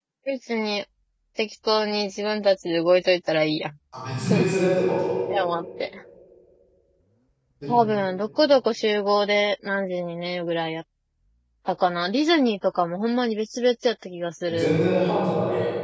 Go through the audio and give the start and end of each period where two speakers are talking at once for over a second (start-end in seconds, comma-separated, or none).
none